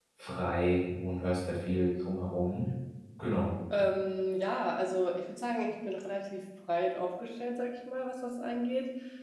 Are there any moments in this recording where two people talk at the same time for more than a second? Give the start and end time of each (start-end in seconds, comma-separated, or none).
none